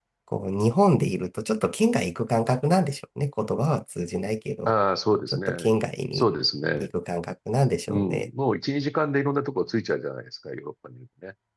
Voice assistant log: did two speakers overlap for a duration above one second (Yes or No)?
No